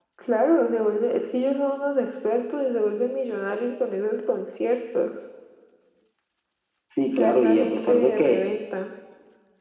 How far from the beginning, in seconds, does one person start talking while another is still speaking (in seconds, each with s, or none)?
7.2 s